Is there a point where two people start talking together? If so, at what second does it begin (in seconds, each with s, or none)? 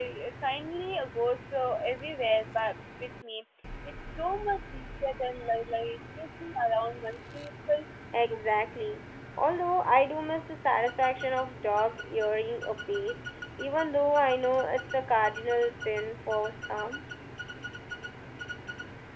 none